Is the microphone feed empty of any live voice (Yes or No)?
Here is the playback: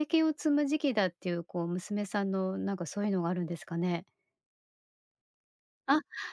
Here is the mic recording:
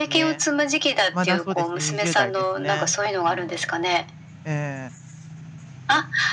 No